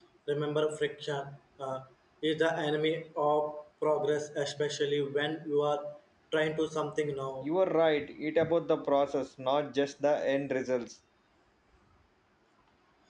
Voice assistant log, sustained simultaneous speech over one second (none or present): none